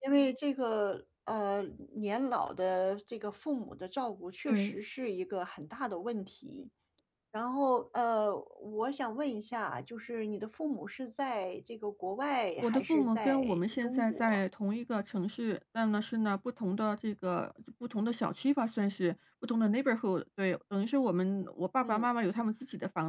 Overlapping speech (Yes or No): Yes